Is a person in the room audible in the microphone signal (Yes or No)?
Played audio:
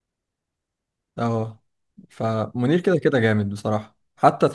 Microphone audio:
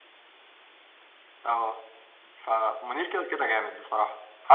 No